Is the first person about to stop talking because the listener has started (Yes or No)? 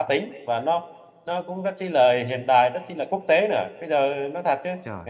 No